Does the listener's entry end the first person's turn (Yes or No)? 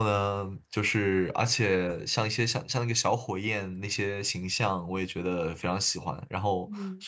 No